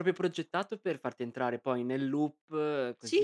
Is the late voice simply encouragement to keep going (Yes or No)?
No